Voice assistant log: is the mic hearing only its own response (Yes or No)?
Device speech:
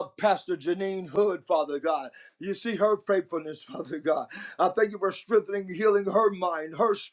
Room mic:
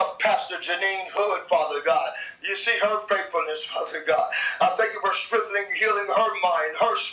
Yes